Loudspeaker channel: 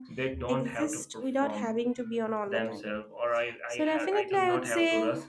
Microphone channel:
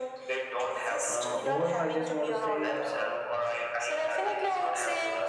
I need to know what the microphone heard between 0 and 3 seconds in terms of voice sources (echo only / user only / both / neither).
both